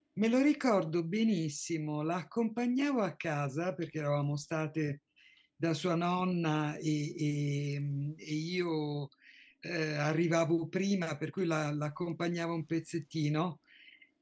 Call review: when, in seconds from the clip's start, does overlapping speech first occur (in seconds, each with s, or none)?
none